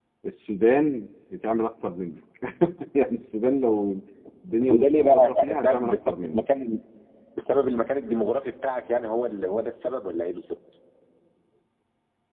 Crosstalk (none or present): present